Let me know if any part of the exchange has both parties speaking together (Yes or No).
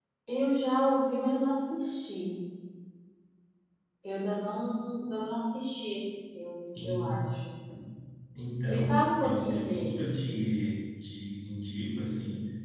Yes